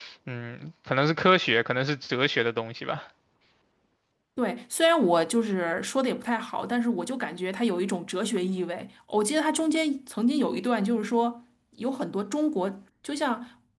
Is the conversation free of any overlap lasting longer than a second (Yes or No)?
Yes